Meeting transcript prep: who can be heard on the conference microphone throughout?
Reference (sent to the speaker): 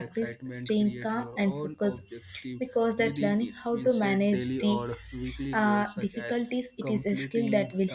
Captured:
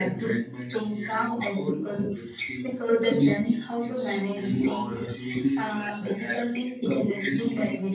echo only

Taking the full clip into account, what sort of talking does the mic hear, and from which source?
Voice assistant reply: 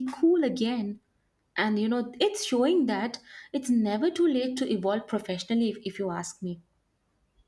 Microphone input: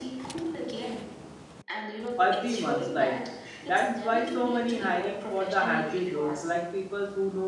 both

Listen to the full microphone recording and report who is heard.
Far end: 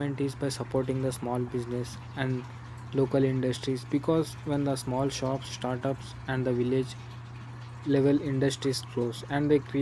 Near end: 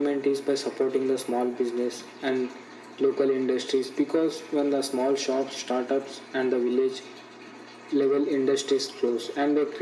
echo only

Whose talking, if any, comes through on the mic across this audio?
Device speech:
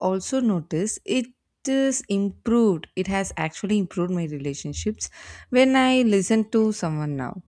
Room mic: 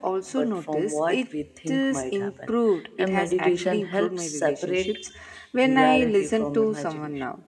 both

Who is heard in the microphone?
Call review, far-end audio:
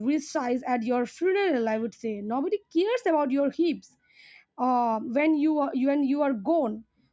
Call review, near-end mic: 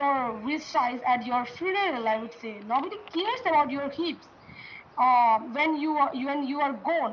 echo only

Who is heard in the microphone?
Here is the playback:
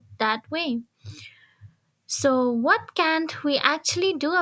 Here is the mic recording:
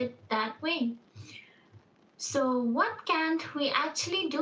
echo only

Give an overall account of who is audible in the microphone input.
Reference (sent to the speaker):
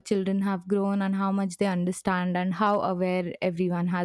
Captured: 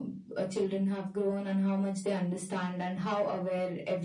echo only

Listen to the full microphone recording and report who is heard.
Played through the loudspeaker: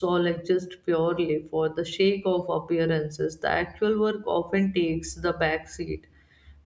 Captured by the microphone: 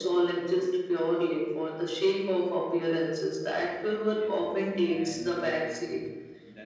both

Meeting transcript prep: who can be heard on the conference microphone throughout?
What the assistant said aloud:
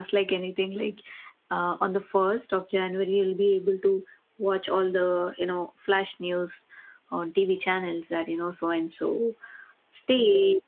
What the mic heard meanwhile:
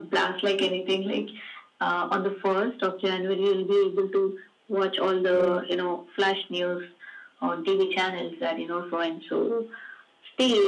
both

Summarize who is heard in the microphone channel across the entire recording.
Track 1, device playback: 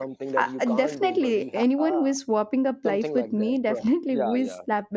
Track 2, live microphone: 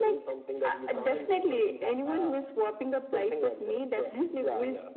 echo only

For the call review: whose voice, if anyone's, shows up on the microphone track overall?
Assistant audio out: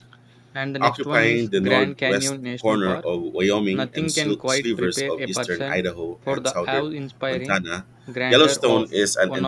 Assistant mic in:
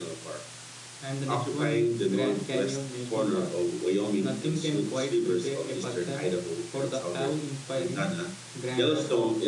echo only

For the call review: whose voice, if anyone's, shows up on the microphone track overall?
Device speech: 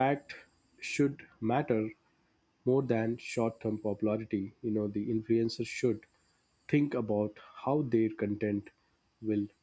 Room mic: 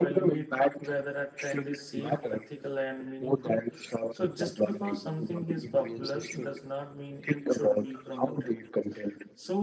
both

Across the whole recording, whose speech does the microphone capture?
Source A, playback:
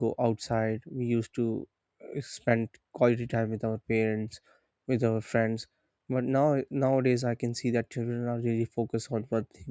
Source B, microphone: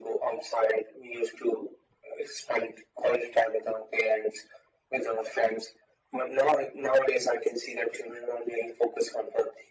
echo only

